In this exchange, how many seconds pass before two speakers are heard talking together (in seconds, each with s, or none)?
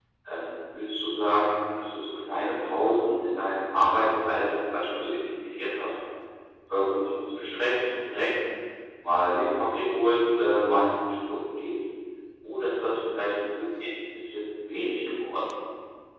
none